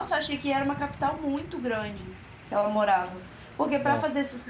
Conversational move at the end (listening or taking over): listening